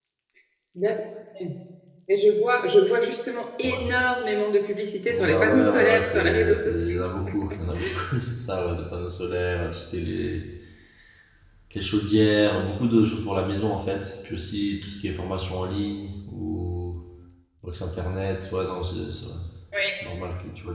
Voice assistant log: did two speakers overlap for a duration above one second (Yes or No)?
Yes